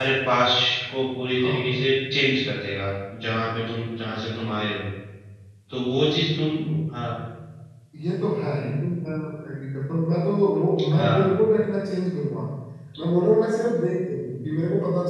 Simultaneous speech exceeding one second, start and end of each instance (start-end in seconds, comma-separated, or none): none